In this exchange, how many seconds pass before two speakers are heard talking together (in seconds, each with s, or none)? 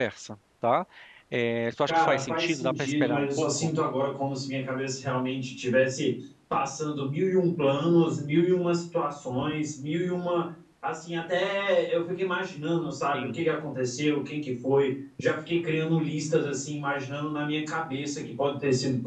1.9 s